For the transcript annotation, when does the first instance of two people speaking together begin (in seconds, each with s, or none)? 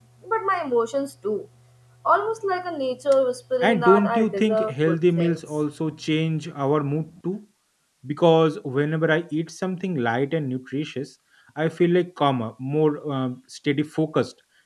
3.6 s